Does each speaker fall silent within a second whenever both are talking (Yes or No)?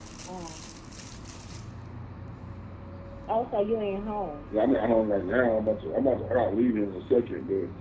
Yes